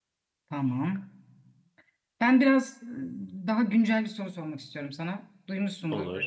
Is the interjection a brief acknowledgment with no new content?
Yes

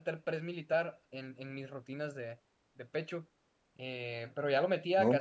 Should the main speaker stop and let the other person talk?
No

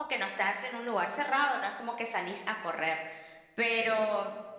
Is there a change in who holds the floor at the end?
No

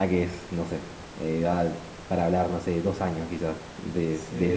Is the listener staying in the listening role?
No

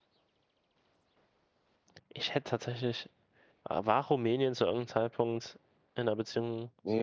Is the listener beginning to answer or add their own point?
Yes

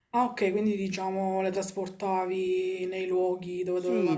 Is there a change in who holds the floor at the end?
Yes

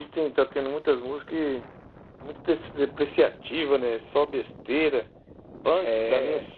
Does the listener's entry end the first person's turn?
No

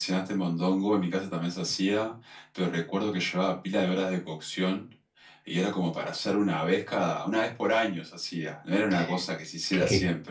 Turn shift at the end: Yes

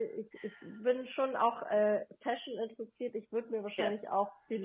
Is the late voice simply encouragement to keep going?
Yes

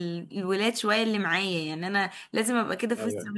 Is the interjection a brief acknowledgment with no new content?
Yes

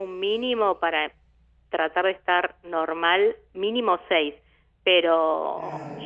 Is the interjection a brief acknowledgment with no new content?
Yes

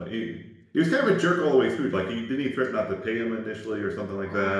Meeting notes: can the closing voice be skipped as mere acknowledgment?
No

